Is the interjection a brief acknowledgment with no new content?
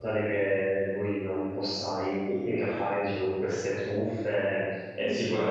Yes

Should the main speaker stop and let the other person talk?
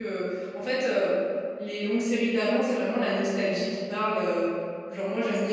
No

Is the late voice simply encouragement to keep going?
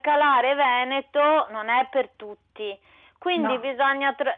Yes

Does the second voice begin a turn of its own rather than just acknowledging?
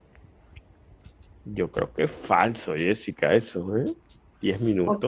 Yes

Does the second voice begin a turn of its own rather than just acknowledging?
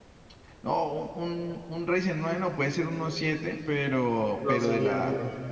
No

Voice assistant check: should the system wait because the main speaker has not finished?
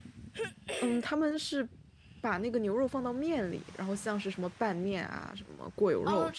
No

